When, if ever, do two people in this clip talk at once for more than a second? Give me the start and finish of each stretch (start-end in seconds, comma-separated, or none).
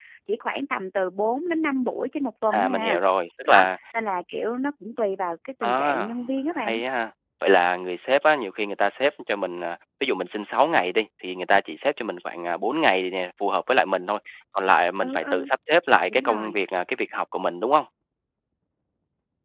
none